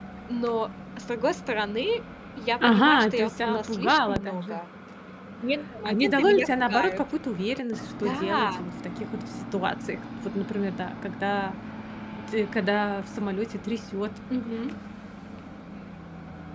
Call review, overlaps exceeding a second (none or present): present